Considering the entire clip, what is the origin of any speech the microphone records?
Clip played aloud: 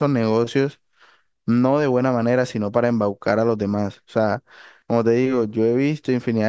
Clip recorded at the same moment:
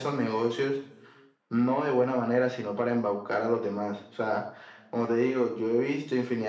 echo only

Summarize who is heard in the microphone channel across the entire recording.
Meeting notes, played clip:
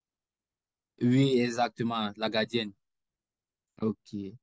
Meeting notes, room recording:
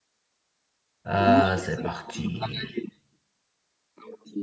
both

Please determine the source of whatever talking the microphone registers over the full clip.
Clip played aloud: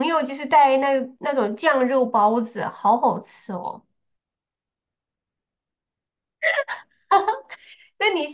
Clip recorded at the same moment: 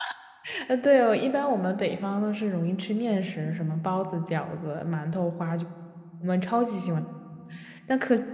user only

